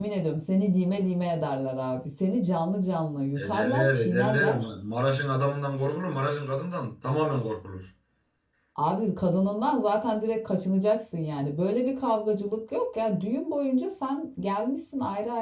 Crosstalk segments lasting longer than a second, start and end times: 3.4-4.7

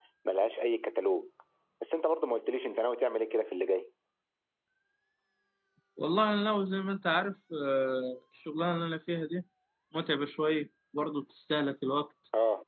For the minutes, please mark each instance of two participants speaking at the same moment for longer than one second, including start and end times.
none

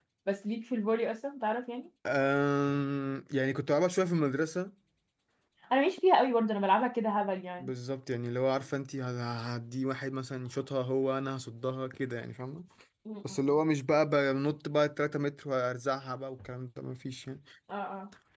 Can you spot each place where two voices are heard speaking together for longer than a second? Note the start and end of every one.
none

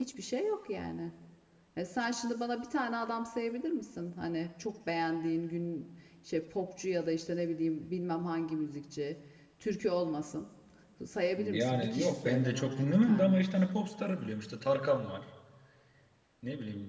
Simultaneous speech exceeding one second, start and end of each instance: 11.4-13.4

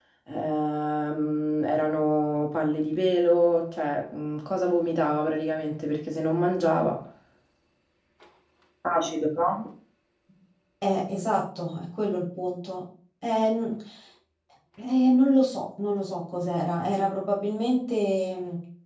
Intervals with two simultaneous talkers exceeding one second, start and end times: none

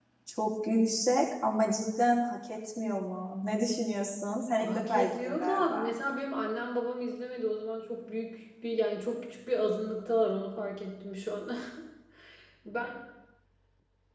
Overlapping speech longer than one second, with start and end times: 4.6-5.9

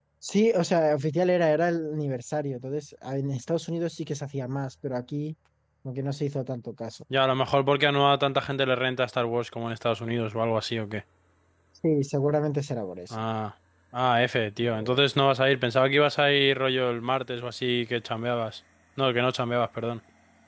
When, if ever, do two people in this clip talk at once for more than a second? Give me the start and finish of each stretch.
none

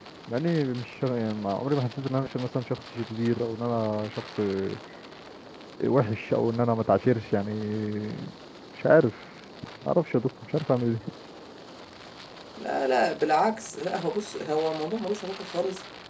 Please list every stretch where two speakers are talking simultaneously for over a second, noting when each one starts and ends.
none

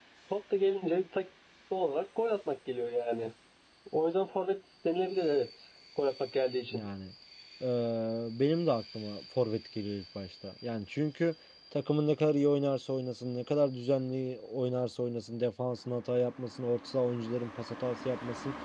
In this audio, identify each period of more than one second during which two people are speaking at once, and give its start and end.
none

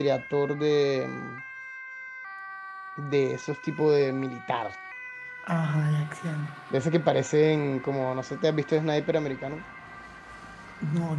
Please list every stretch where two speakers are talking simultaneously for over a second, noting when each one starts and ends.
none

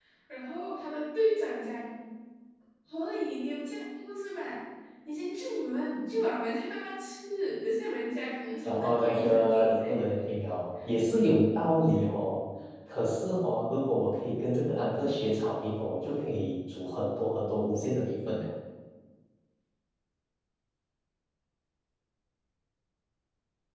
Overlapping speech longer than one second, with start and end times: 8.7-10.0

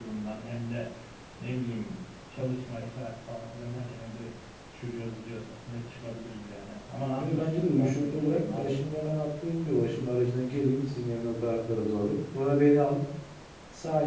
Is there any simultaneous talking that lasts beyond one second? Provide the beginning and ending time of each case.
7.2-8.9

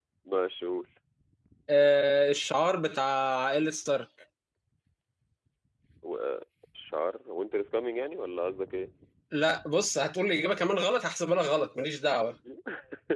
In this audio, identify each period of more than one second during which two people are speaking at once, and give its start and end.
none

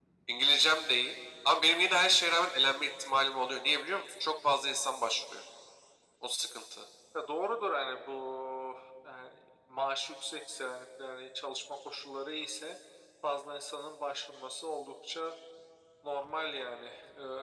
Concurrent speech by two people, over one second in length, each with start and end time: none

